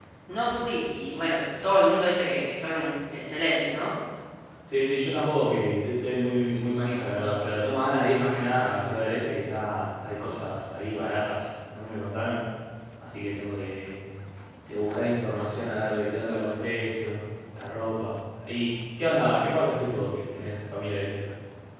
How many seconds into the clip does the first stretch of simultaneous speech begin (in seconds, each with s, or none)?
none